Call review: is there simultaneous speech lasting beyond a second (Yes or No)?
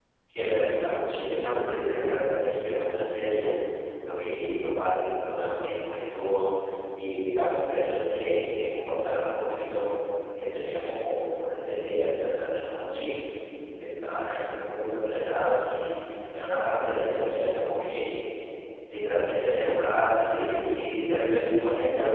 Yes